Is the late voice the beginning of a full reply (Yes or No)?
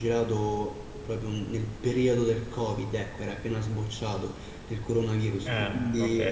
No